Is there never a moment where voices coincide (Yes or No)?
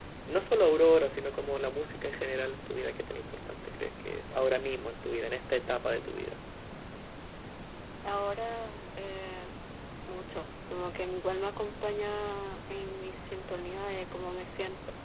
Yes